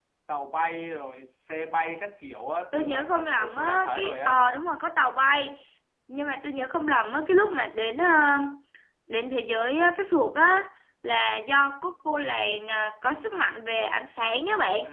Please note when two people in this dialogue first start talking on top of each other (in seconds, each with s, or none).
2.7 s